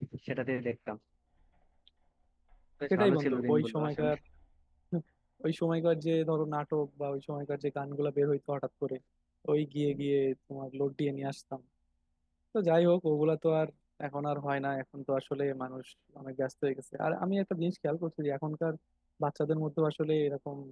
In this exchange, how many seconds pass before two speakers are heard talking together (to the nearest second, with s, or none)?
3 s